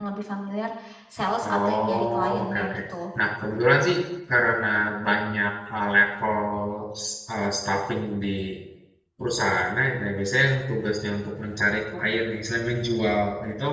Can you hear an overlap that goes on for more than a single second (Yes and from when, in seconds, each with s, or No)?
Yes, from 1.5 s